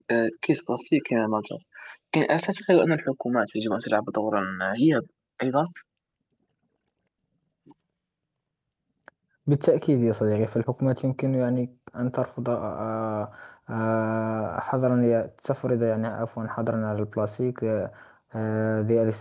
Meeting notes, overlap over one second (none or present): none